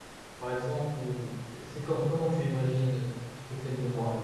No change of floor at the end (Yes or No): No